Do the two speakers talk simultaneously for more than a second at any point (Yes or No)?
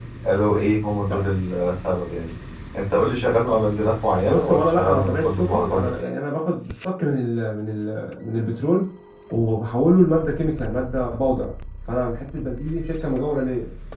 Yes